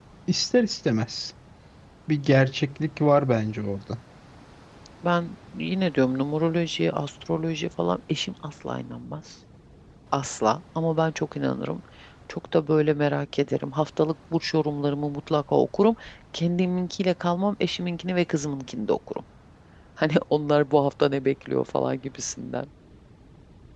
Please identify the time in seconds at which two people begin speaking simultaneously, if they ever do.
none

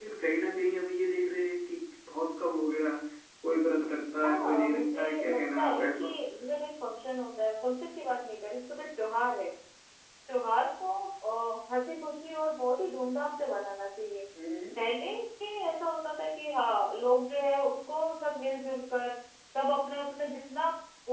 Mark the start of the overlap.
4.2 s

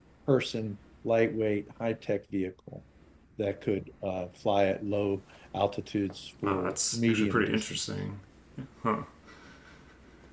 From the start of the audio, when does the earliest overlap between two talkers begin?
6.4 s

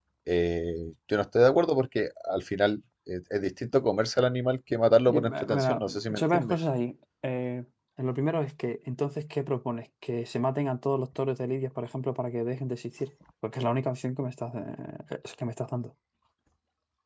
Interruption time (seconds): 5.1 s

